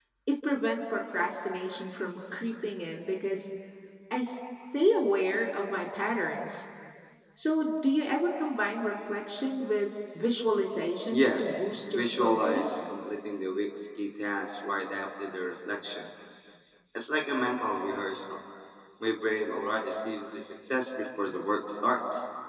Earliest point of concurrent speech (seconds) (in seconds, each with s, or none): 11.1 s